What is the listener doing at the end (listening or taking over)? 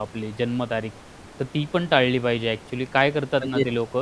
listening